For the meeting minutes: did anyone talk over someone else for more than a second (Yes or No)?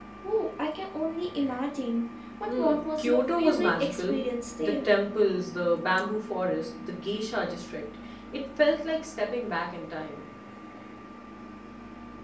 Yes